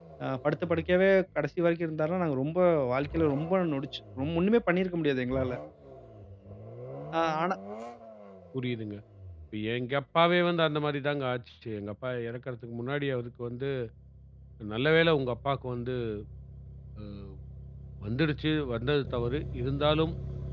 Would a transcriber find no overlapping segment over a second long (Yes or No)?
Yes